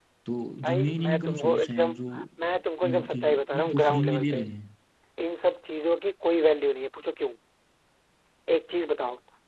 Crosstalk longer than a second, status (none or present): present